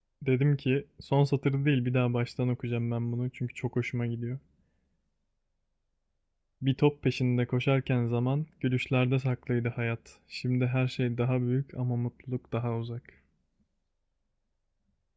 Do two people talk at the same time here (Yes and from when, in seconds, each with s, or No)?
No